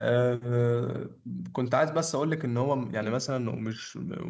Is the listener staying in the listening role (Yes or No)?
Yes